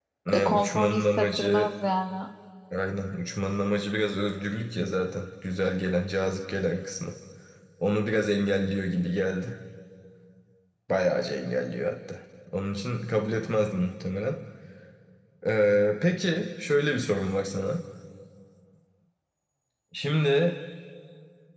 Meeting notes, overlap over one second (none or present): present